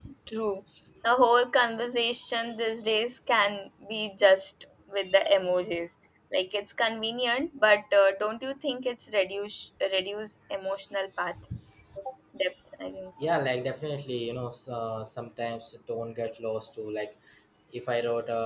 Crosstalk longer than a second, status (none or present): none